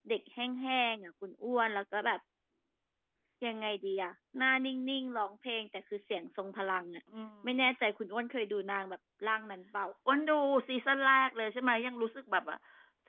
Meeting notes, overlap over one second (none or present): none